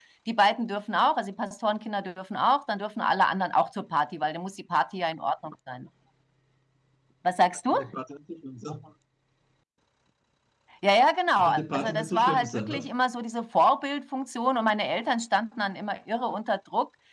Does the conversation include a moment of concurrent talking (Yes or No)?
Yes